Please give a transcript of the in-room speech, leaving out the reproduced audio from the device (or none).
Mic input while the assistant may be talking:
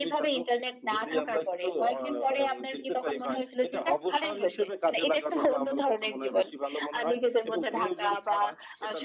none